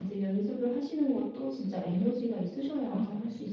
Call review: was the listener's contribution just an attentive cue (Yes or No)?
No